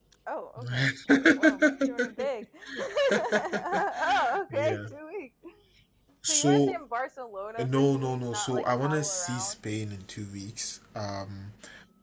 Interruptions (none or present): present